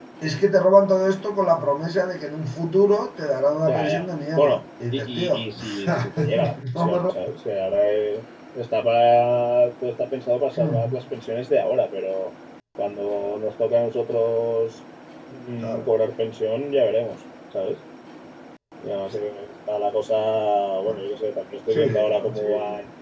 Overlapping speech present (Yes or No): Yes